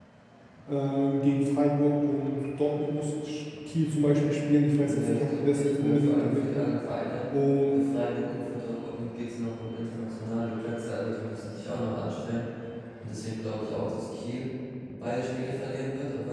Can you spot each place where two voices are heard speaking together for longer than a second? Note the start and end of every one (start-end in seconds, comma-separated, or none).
4.7-6.5